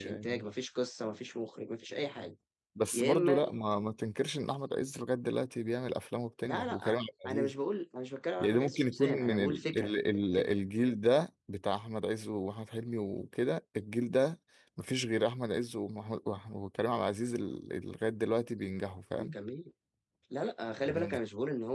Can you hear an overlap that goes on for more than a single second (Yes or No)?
Yes